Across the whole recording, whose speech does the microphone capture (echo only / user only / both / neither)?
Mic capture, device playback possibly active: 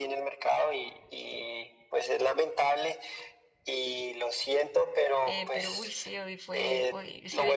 both